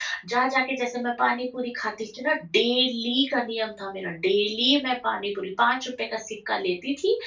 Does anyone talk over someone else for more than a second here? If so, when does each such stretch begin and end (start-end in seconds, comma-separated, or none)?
none